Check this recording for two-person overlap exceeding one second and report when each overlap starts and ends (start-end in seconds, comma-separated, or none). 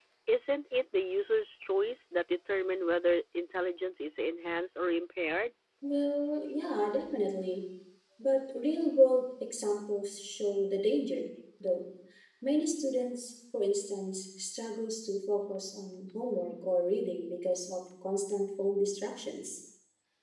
none